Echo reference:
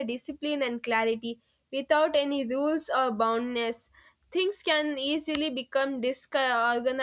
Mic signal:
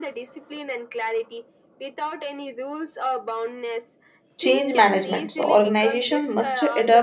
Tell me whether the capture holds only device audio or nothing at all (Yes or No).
No